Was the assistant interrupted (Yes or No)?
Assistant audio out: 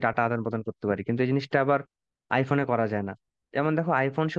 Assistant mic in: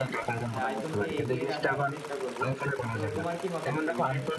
Yes